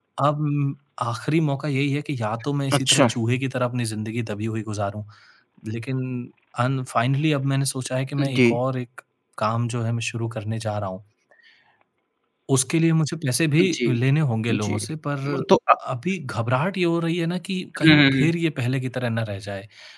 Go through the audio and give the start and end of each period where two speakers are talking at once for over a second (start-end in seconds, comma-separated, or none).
none